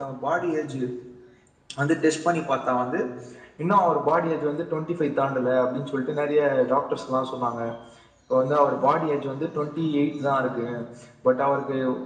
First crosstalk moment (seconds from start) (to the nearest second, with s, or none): none